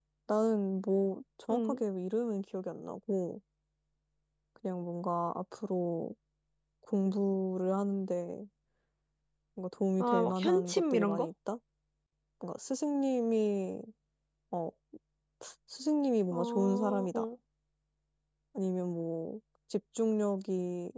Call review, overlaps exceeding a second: present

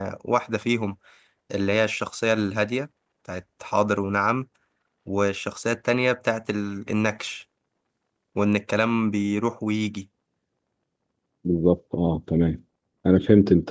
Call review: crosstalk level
none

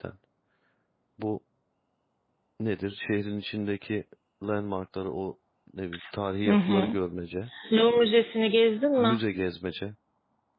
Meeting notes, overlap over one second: none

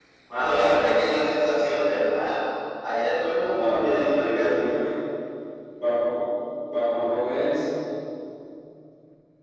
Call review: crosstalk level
present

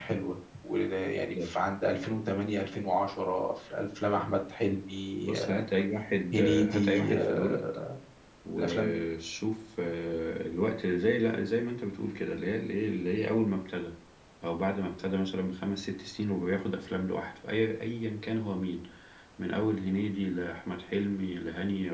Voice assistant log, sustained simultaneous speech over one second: present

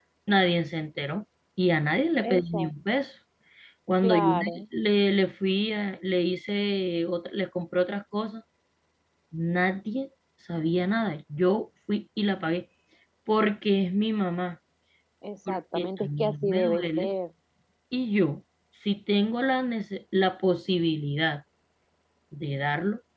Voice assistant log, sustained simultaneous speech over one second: present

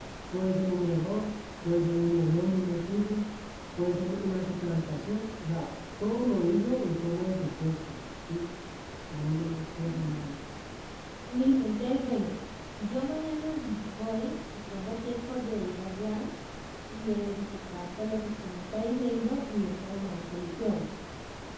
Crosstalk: none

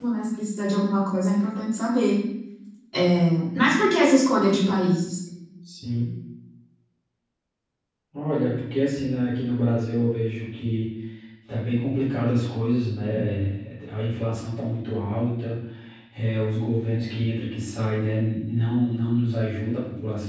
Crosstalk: none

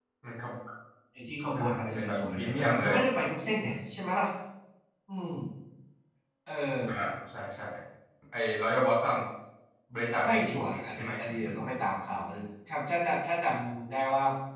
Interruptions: present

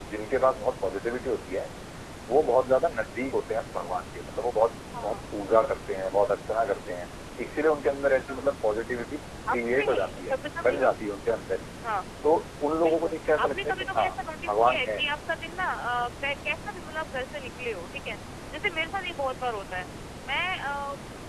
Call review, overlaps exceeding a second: present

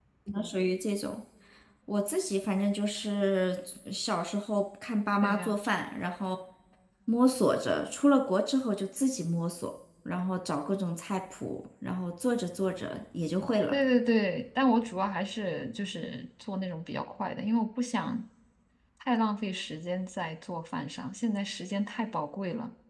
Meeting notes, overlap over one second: none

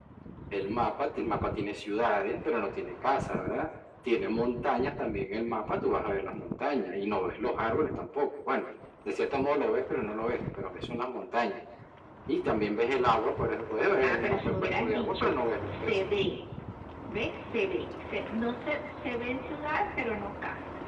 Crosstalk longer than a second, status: present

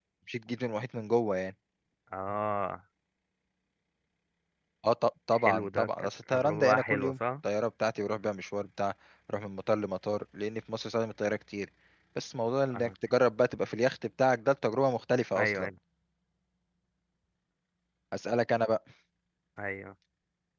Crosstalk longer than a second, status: present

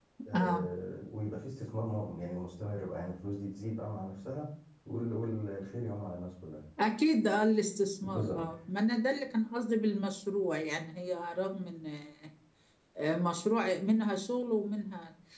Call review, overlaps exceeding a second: none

